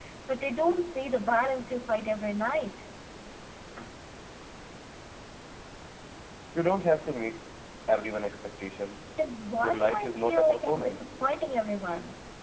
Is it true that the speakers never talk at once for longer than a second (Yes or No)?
No